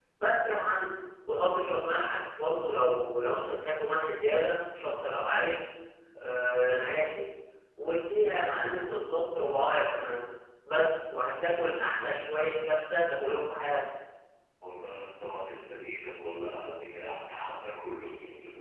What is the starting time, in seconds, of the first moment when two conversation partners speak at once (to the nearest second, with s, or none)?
none